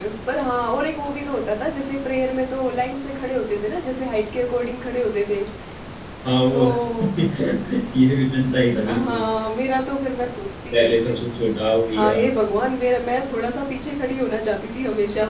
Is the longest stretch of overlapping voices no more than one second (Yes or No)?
Yes